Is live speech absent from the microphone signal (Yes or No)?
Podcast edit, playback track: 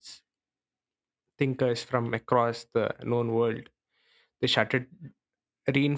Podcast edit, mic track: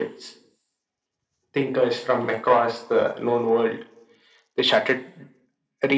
Yes